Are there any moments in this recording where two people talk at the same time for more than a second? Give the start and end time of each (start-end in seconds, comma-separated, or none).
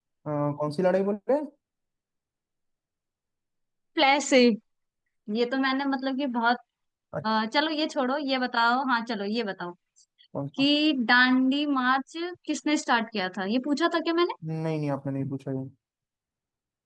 none